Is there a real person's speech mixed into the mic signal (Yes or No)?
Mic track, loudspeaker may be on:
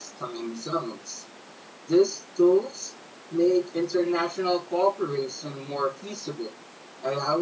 Yes